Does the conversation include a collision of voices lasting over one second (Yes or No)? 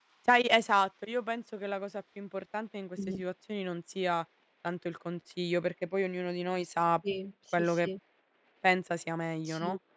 No